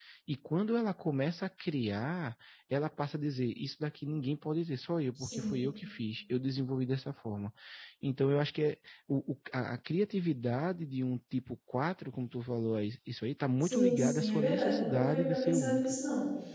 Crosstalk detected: Yes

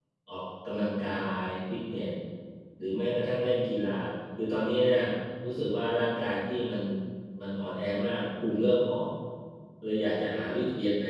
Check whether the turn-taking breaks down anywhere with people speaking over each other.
No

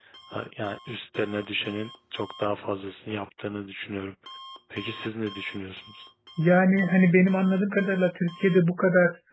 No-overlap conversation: Yes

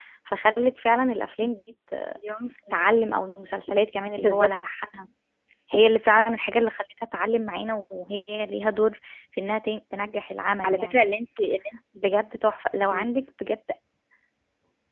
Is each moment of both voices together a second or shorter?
Yes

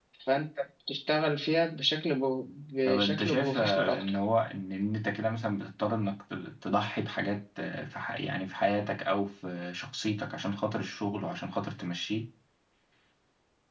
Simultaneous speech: Yes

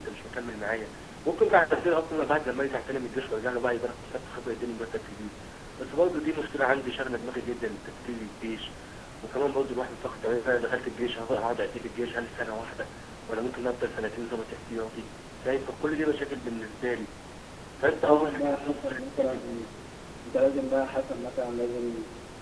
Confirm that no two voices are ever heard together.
No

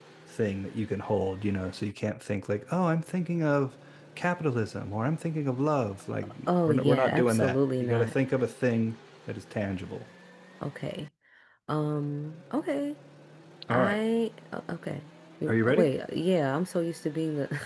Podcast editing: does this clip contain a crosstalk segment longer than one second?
Yes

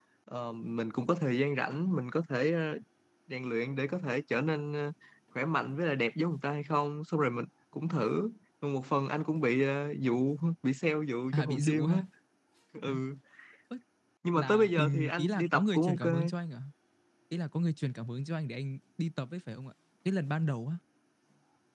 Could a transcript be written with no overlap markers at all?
No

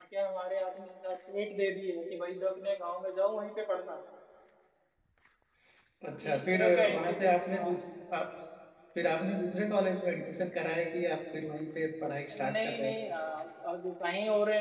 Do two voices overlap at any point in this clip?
Yes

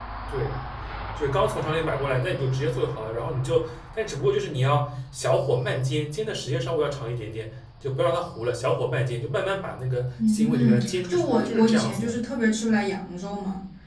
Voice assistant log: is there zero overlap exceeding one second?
No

